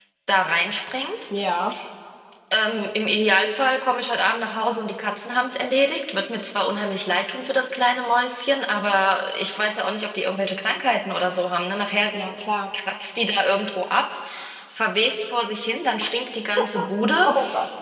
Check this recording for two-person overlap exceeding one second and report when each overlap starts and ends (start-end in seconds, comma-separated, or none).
none